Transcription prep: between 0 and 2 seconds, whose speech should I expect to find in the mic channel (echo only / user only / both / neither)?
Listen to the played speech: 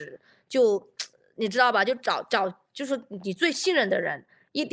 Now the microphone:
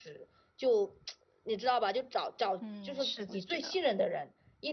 echo only